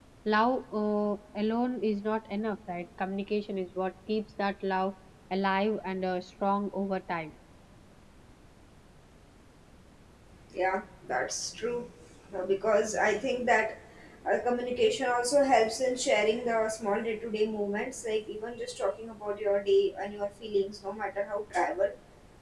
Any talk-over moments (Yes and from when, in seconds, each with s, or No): No